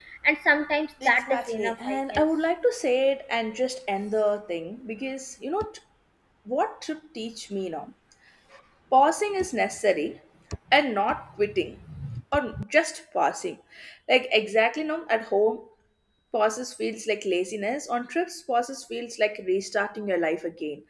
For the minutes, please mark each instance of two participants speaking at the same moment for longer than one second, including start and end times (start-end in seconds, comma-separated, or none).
1.1-2.2